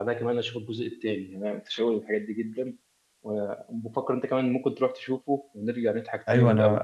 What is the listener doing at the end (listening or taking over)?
taking over